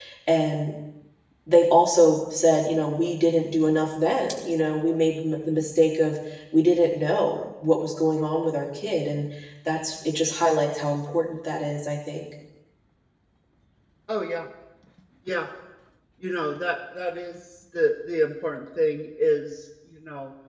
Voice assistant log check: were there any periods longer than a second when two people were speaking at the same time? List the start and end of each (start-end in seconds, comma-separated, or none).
none